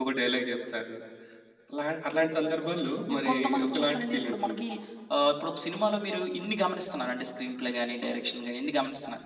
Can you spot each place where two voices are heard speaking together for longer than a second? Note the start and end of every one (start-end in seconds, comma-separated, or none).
3.1-4.6